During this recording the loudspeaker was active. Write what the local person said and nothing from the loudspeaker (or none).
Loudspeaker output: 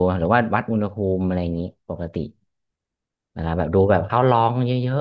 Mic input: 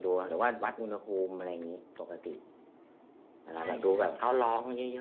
ใช่ใช่ใช่